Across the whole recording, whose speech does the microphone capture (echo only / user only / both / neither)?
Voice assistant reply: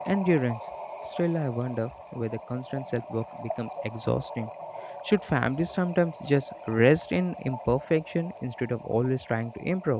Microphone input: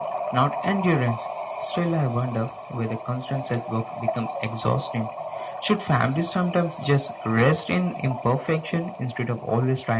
echo only